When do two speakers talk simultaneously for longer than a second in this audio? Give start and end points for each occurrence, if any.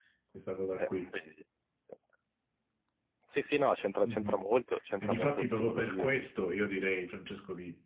5.0-6.3

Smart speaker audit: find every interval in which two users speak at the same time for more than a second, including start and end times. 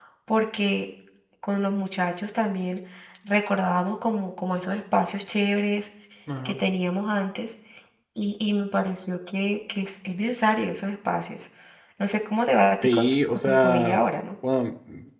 12.8-14.0

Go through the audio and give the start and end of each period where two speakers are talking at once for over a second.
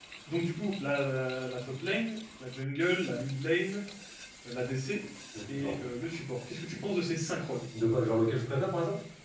none

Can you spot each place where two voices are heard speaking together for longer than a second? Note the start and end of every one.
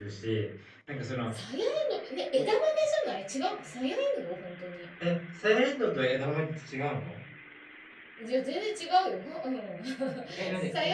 none

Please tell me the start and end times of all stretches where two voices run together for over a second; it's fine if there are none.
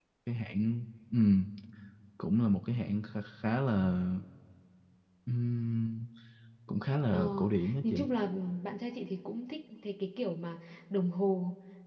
none

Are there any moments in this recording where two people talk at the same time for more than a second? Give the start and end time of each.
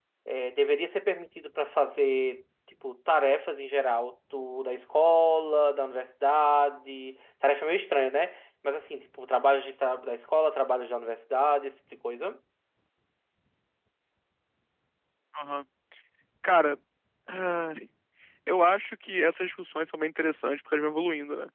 none

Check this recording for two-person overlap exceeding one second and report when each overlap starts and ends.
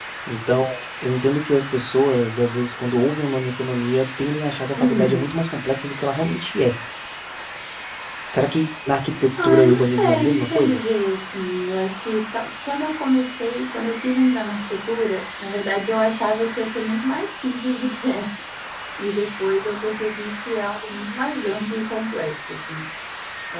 9.4-10.8

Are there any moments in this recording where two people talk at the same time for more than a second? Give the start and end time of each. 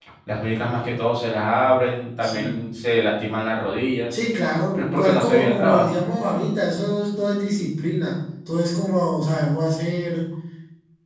4.7-6.0

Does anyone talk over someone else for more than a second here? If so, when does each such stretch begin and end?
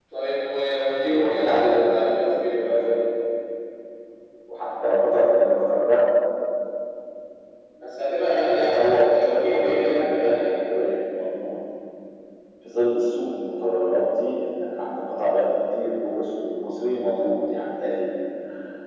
1.1-3.0, 8.7-10.6

